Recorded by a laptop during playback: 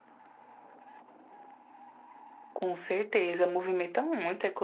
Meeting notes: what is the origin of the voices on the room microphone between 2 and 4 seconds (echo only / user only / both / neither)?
user only